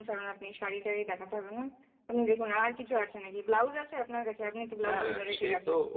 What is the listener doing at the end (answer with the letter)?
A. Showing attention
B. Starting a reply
B